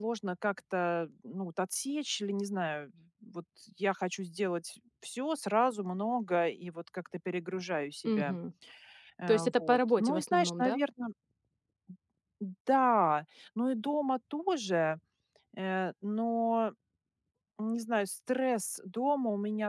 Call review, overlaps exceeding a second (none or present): present